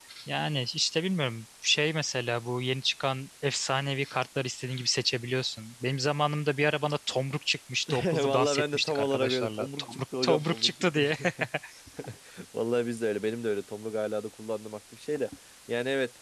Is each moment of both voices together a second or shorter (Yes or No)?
No